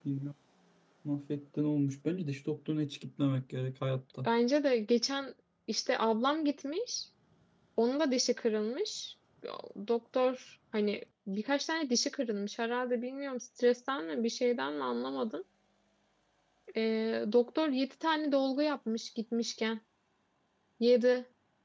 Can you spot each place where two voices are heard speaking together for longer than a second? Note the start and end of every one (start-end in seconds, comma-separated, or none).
none